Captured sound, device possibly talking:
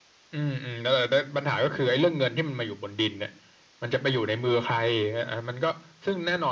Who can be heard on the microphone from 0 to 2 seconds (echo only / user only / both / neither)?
echo only